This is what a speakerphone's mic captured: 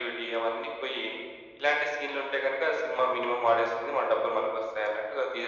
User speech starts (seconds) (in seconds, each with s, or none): none